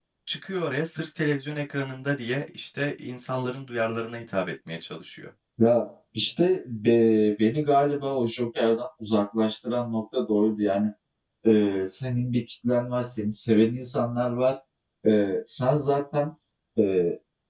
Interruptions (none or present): none